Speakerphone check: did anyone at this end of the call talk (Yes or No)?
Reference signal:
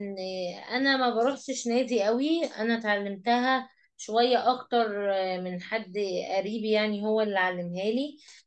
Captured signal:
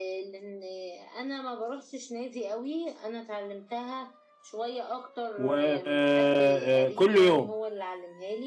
Yes